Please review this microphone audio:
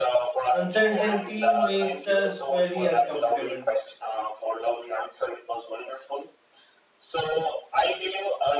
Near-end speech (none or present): present